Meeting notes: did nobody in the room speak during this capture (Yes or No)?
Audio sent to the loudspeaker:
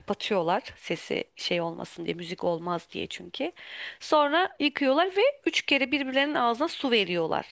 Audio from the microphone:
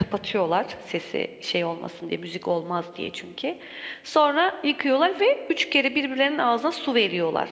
Yes